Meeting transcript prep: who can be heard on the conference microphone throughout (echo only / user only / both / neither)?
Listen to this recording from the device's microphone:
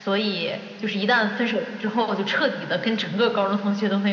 echo only